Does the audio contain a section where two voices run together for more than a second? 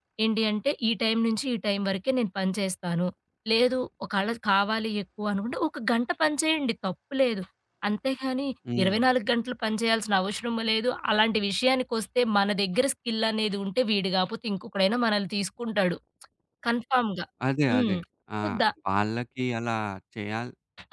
No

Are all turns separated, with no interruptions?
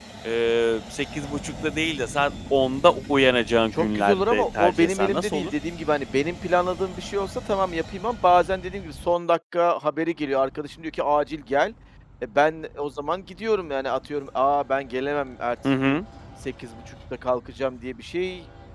No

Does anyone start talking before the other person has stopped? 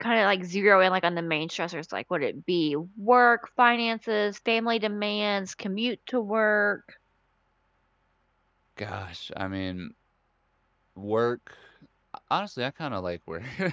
No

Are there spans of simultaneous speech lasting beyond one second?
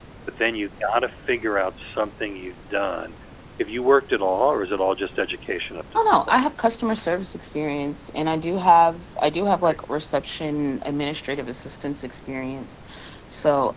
No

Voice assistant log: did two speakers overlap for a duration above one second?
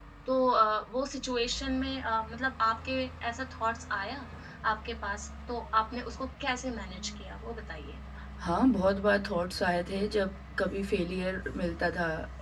No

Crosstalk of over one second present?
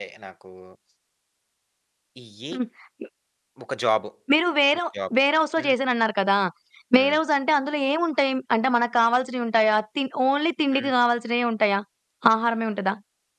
No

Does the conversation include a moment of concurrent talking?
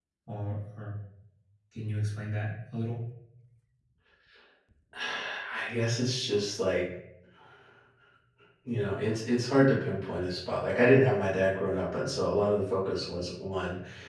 No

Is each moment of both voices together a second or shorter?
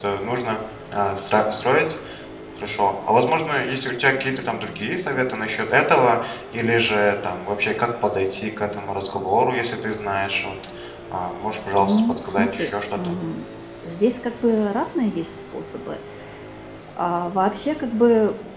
No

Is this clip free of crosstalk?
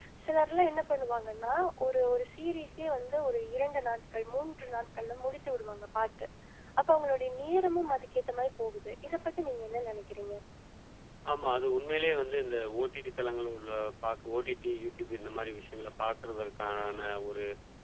Yes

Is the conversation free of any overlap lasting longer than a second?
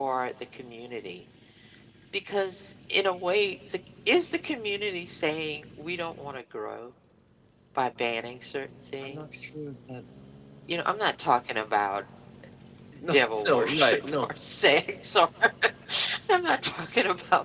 No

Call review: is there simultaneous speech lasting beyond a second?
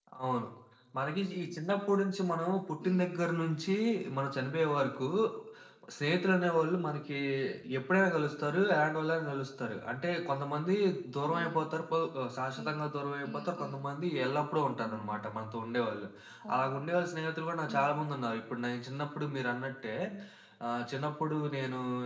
No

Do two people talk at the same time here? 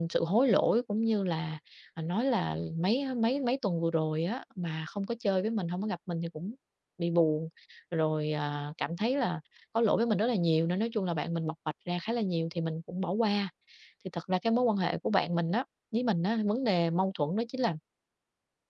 No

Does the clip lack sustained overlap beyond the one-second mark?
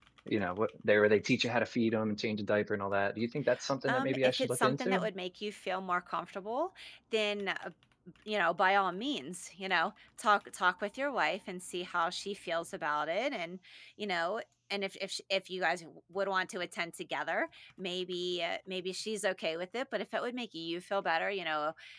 No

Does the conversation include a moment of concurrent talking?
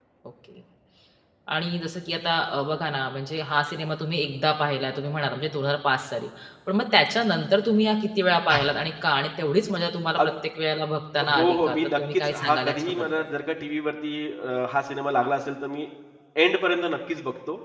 Yes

